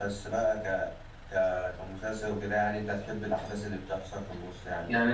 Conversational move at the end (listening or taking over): taking over